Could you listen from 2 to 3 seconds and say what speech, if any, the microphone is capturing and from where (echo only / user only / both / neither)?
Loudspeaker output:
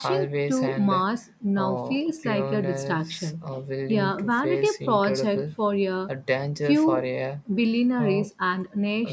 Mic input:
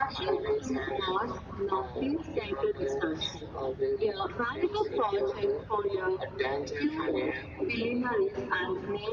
echo only